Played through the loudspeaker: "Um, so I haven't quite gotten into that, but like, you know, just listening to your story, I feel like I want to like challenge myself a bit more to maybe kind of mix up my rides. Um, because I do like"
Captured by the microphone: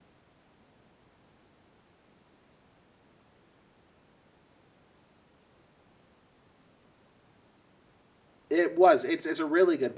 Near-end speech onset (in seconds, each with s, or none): 8.5 s